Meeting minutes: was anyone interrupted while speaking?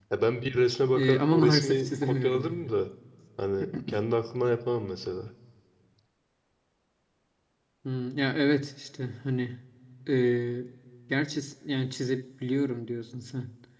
Yes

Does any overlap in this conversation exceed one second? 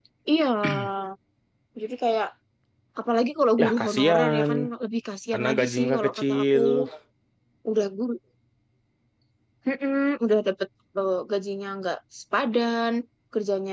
Yes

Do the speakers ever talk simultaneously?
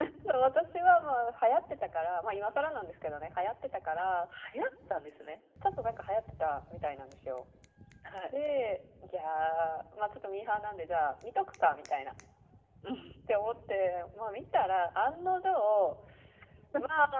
No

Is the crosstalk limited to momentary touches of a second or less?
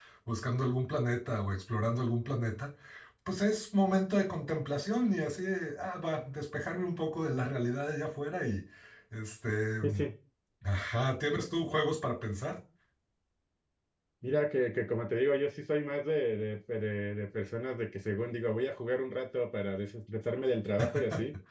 Yes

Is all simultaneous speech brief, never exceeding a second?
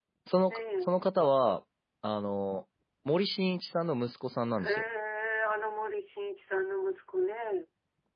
Yes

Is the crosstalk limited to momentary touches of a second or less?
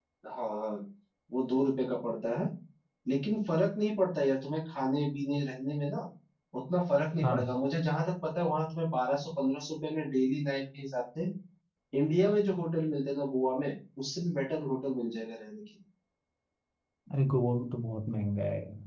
Yes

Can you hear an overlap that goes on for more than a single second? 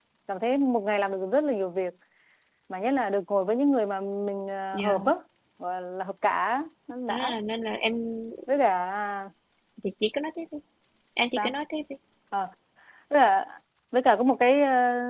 No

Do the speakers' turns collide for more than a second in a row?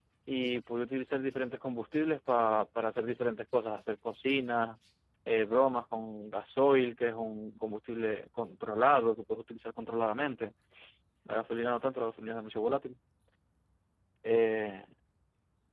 No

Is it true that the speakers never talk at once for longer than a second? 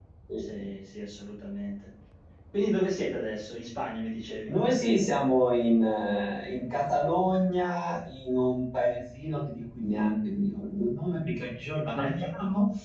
Yes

